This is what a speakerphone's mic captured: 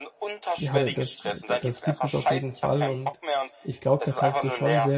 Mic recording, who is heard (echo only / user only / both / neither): both